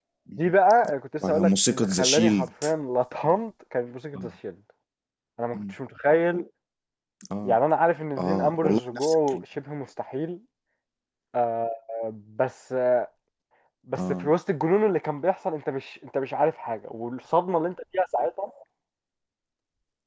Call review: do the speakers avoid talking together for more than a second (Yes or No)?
No